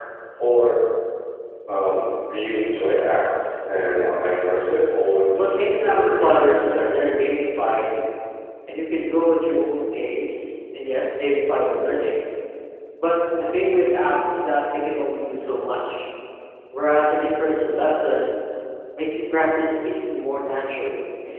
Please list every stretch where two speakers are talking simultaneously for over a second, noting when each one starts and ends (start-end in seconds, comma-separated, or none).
5.3-7.2